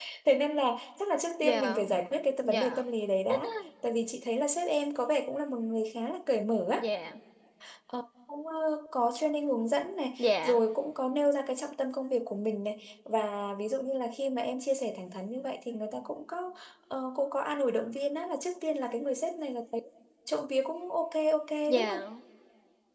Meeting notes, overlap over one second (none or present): none